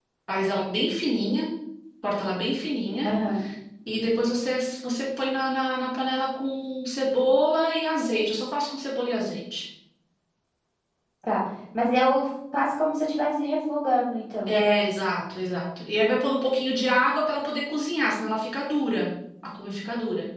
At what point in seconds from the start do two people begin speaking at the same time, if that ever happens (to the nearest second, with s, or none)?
none